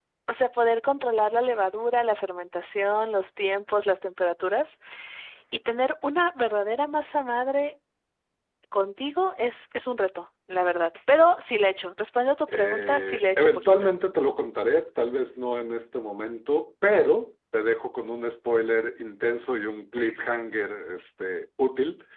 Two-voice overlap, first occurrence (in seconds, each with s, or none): 12.5 s